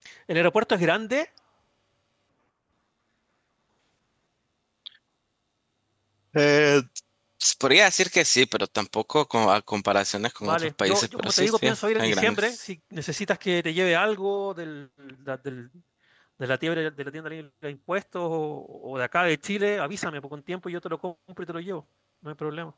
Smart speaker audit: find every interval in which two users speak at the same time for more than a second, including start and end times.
10.4-12.4

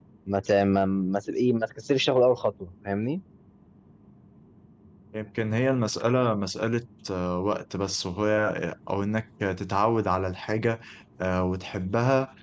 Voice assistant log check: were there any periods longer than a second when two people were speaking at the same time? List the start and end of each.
none

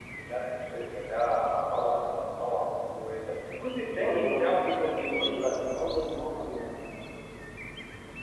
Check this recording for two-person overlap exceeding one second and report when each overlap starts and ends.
4.0-5.7

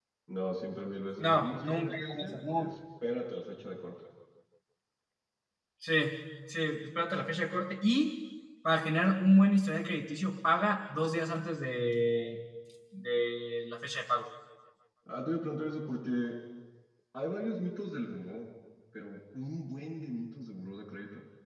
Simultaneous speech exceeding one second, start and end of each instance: 1.2-2.7

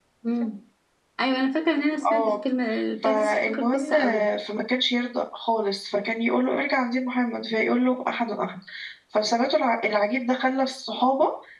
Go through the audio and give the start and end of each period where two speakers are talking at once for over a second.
3.0-4.2

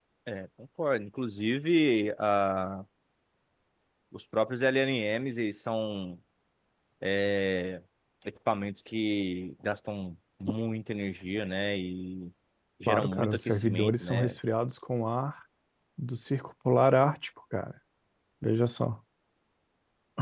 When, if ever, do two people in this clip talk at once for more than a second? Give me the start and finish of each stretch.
12.9-14.4

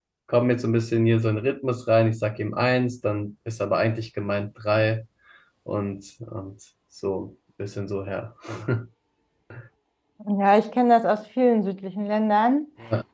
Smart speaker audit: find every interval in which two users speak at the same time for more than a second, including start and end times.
none

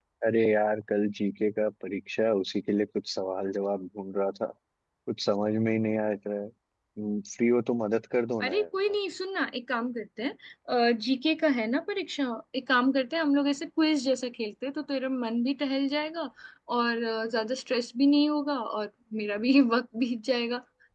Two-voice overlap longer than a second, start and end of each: none

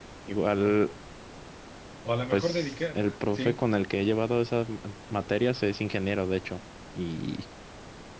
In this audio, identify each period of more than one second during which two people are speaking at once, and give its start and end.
2.3-3.6

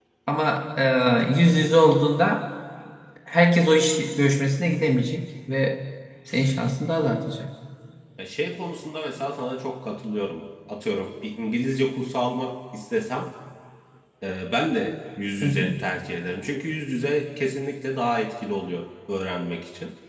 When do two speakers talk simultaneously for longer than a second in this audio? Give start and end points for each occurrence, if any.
none

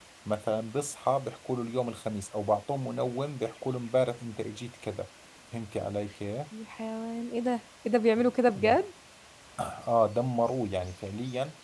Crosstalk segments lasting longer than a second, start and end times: none

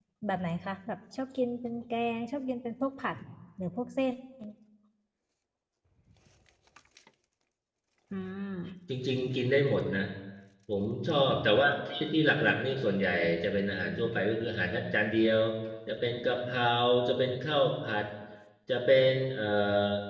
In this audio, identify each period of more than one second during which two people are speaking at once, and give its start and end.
none

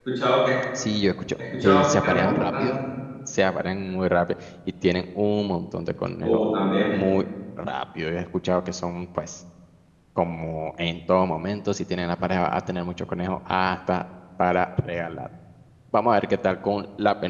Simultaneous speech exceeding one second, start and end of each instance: 1.5-2.8

